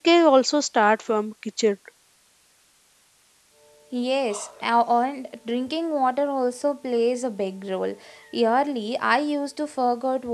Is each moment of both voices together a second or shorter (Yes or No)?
Yes